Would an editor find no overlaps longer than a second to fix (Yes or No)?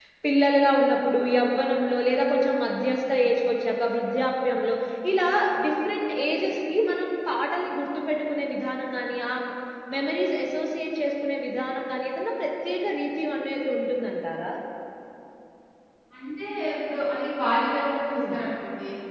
Yes